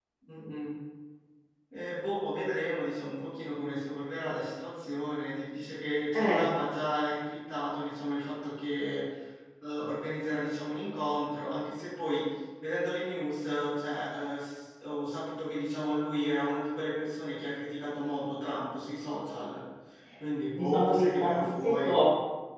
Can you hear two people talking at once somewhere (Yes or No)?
Yes